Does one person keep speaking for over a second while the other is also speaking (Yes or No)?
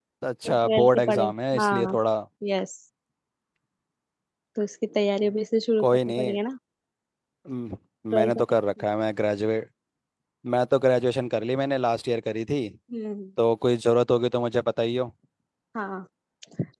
Yes